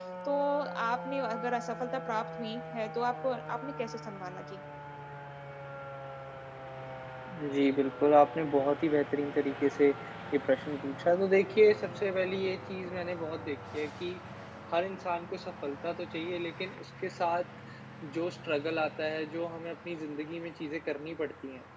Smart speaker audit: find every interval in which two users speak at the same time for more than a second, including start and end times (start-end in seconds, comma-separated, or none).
none